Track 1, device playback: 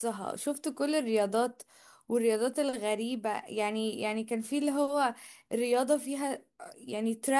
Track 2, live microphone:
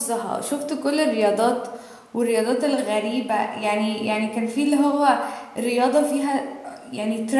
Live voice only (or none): none